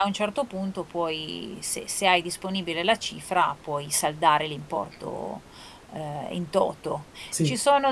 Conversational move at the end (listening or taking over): listening